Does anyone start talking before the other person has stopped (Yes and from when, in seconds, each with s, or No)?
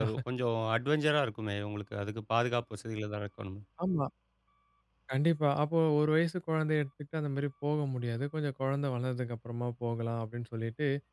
No